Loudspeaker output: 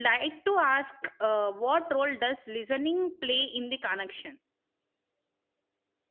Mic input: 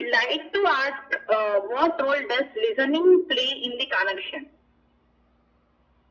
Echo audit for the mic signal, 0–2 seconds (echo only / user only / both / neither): echo only